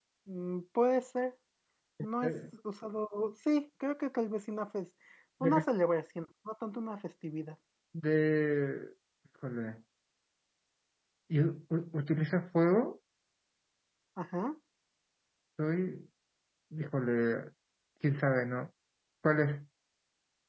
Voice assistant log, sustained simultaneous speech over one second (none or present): none